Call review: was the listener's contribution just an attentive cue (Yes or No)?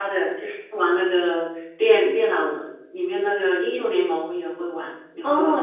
No